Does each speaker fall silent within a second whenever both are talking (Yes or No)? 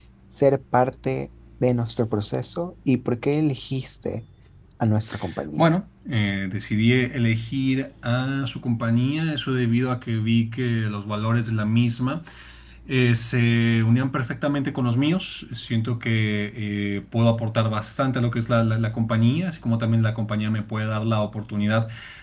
Yes